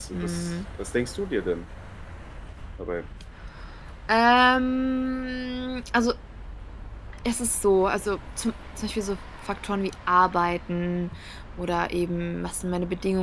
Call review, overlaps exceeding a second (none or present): none